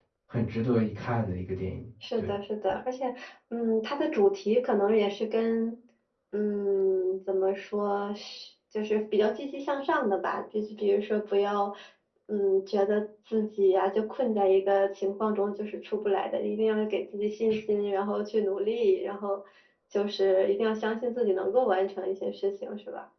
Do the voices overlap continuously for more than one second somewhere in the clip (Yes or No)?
No